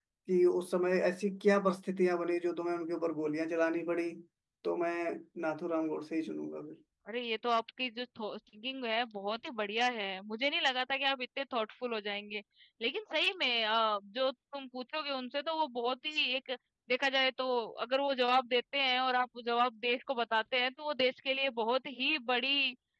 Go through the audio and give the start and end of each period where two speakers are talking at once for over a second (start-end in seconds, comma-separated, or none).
none